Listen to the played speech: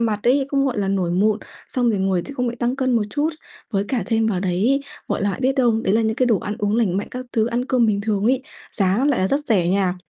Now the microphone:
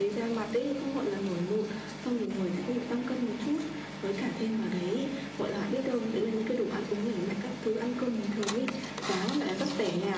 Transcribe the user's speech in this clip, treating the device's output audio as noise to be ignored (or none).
none